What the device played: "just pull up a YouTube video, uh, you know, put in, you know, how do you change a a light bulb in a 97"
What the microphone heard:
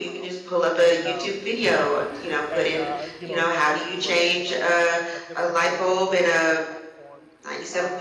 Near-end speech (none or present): present